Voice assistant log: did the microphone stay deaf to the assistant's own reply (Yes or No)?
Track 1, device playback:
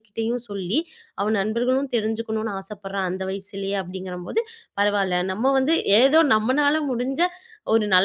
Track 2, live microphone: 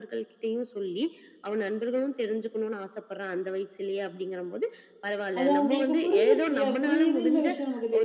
No